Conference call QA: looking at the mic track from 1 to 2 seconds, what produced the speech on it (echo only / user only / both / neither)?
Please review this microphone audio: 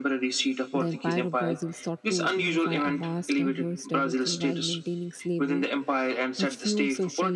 both